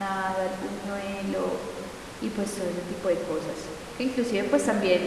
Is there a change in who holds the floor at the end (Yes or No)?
No